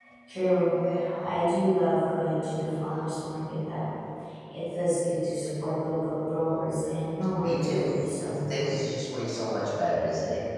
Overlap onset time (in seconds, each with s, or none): 7.4 s